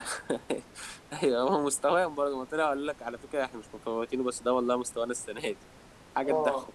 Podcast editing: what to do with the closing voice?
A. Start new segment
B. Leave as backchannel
A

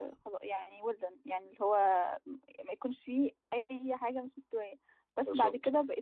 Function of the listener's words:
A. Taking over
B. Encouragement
B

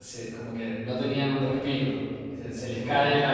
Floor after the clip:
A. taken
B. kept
B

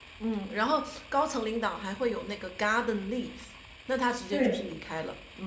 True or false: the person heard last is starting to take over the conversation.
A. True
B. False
B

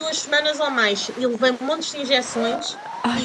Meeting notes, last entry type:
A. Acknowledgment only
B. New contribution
A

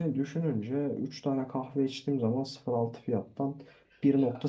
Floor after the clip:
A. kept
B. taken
A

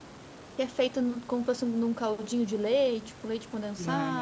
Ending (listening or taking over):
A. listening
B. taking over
B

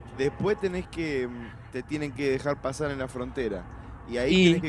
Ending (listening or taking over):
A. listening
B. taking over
A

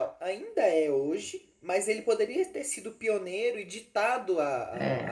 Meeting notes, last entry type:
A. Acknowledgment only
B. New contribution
A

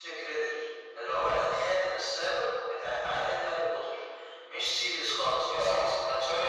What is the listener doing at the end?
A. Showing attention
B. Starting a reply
B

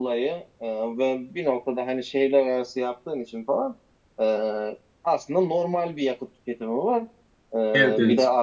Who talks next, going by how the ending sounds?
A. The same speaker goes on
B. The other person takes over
A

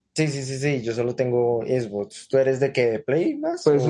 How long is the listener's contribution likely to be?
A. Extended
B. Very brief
A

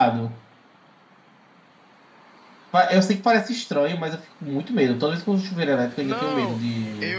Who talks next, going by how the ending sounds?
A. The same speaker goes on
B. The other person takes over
B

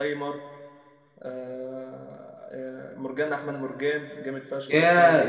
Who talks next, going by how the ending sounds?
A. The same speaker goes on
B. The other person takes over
B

